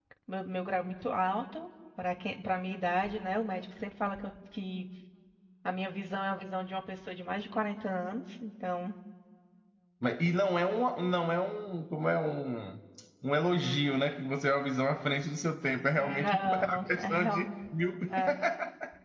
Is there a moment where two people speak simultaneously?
Yes, from 16.0 s

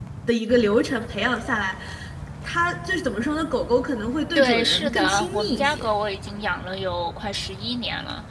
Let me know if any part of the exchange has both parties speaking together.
Yes, from 4.3 s

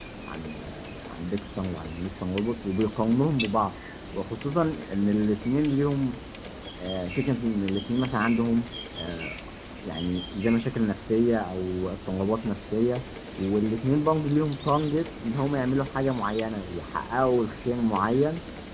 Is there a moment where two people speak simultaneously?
No

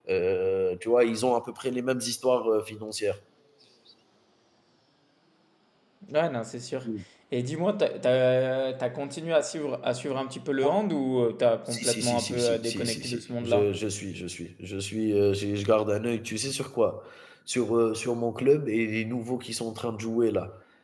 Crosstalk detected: Yes, from 11.7 s

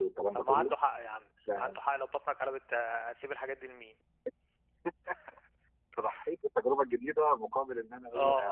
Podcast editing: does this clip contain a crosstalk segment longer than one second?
No

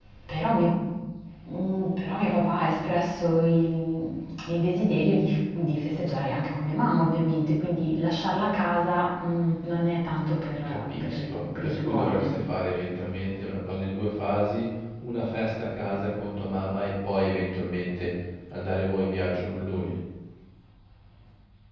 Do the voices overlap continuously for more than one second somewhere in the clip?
Yes, from 10.6 s

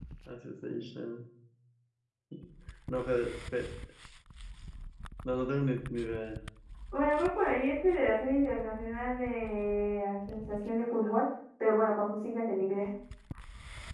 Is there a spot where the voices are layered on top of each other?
No

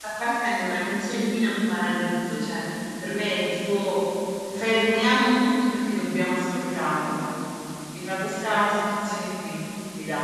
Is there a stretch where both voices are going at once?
No

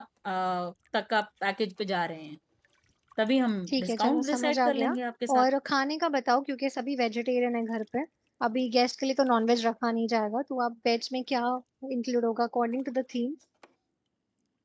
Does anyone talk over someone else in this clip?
Yes, from 3.7 s

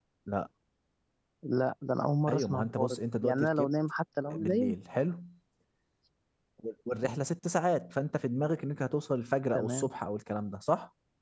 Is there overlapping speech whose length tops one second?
Yes, from 2.3 s

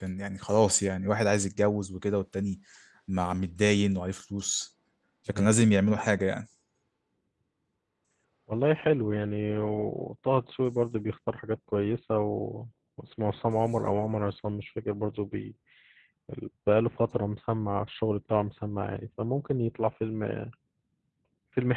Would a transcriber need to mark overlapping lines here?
No

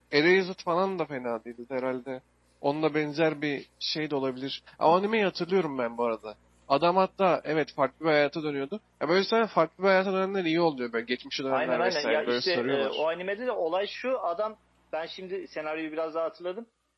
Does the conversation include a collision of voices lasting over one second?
Yes, from 11.5 s

